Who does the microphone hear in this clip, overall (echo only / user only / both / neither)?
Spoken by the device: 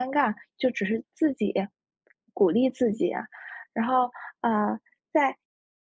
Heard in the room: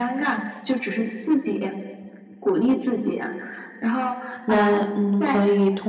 both